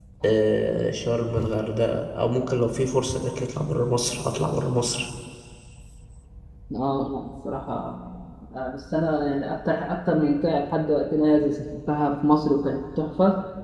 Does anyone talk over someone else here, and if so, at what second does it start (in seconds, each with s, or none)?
none